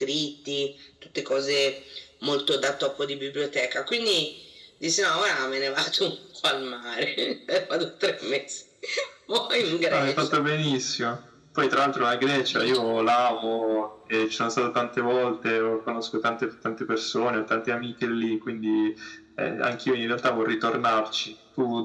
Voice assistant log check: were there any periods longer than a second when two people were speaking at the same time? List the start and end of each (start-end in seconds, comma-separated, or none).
none